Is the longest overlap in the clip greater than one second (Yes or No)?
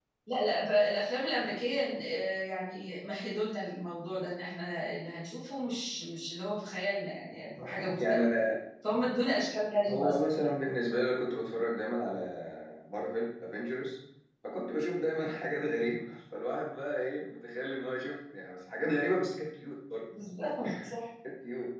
No